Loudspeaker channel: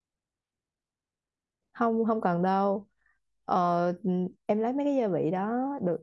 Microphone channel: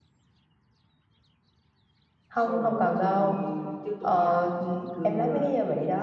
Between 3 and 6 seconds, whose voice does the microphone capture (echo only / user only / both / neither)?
both